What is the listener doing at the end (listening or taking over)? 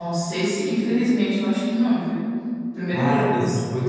taking over